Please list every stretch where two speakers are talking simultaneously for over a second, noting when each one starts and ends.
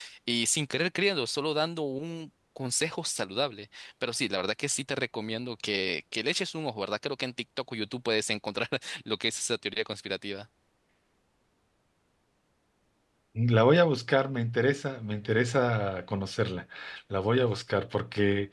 none

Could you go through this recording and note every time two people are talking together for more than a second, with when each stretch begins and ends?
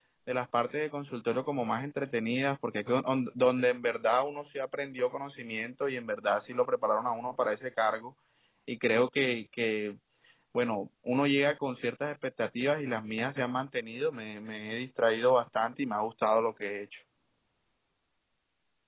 none

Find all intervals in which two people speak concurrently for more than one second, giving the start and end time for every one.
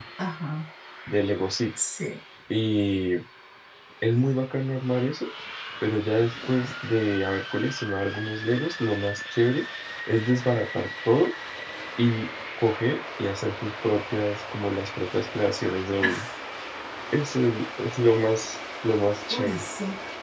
none

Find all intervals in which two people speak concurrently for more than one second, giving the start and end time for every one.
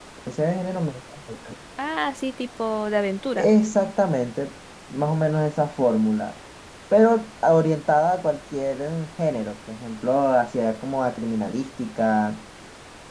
none

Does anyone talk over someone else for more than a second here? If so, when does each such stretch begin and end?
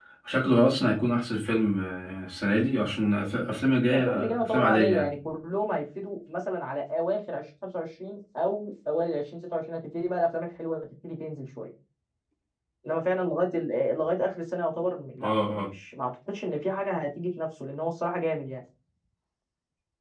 3.9-5.2

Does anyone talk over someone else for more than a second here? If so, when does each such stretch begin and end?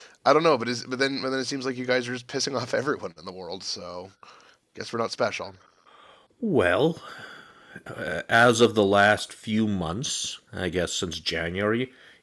none

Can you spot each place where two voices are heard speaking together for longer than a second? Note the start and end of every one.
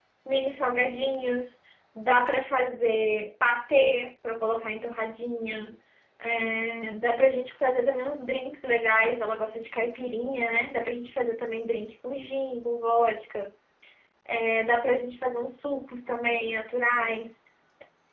none

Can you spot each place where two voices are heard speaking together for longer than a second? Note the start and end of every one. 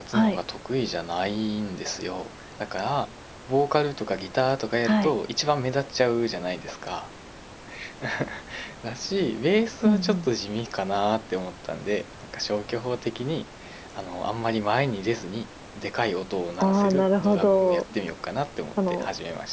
16.6-17.8

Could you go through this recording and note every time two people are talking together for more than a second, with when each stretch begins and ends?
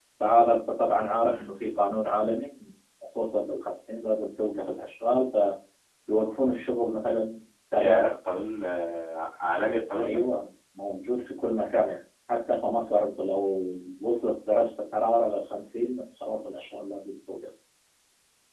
none

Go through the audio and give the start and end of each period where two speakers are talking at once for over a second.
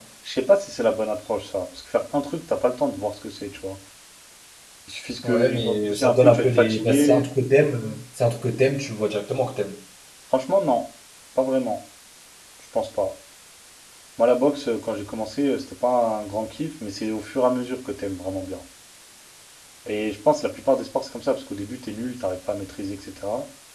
5.2-7.2

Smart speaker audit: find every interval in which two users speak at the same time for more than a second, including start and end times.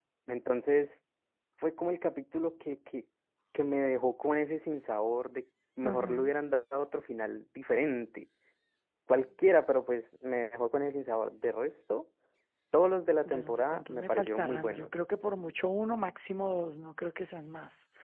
13.2-14.9

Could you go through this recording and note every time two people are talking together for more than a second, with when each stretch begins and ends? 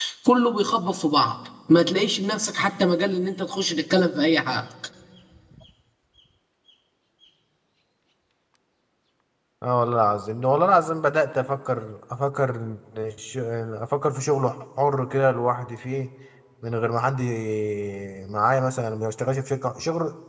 none

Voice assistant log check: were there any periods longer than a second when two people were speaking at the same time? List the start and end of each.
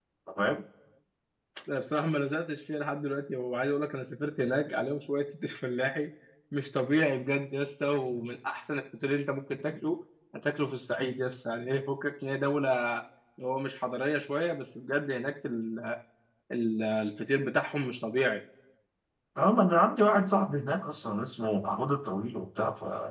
none

